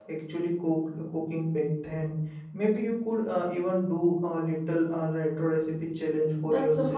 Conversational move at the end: taking over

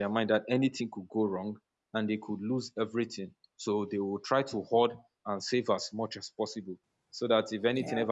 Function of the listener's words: listening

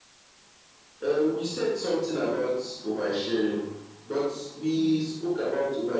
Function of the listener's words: listening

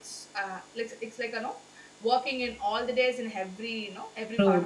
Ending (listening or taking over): taking over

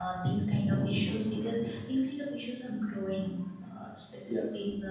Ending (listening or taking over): listening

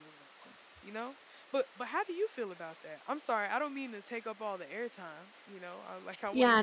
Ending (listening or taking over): taking over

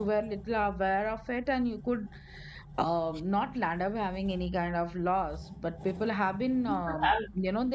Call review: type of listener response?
listening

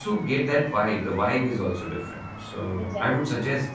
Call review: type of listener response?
listening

